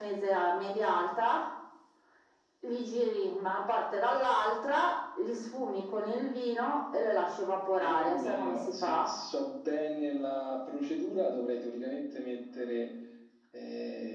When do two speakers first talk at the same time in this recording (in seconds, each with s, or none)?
7.8 s